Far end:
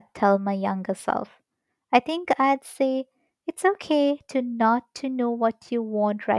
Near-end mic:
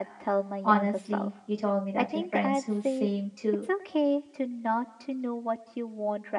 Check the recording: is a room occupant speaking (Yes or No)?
Yes